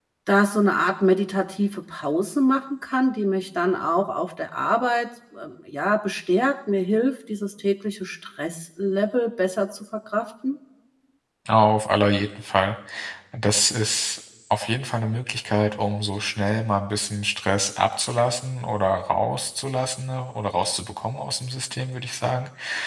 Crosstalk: none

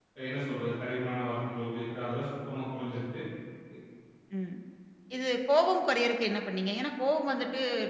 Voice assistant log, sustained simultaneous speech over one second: none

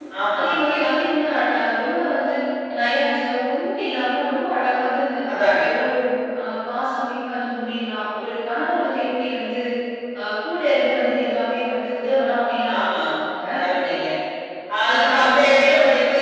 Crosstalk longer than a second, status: present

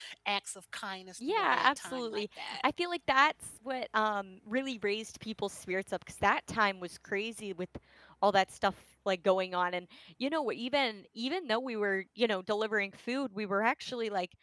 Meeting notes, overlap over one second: present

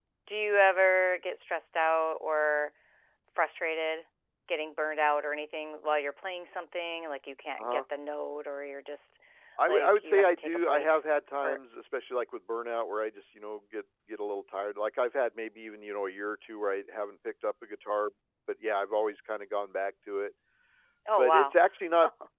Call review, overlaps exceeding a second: present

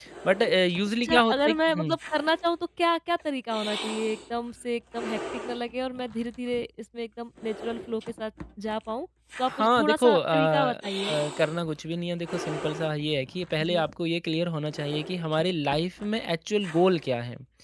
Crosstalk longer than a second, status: present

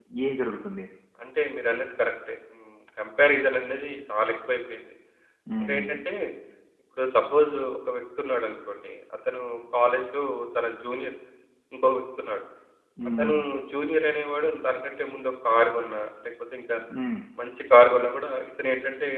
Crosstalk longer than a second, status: none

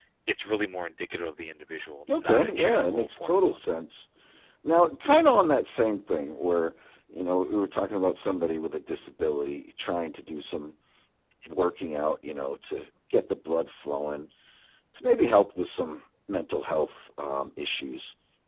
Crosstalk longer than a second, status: present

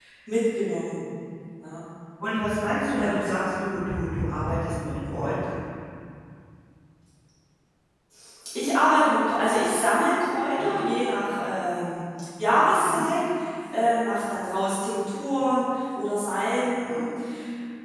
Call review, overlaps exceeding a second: none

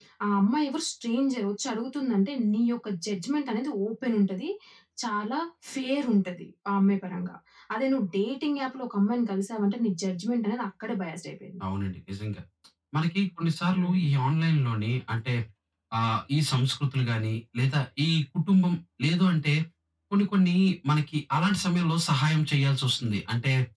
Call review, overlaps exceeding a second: none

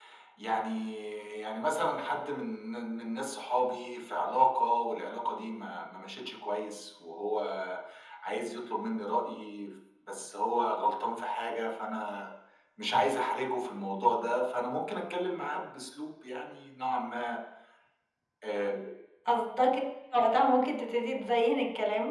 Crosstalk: none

